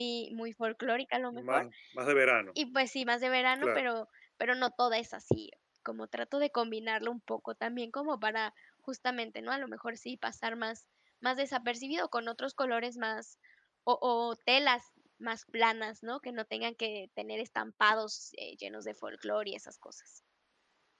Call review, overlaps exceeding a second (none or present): none